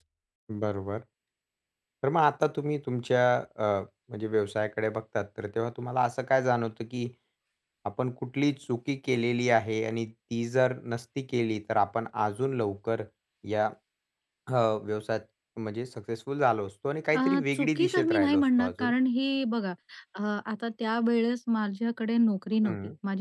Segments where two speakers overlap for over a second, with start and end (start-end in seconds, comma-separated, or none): 17.1-18.9